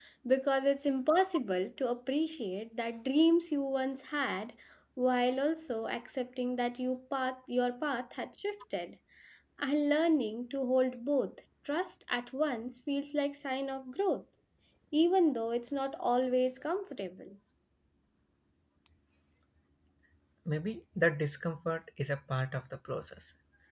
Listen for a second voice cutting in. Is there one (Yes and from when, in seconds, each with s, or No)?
No